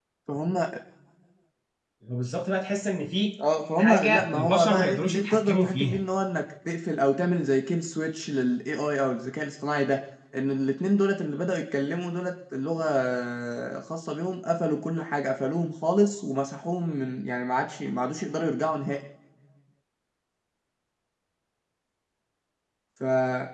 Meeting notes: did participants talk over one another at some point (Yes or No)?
Yes